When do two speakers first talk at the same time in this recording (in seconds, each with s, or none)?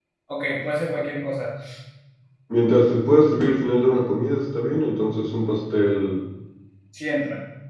none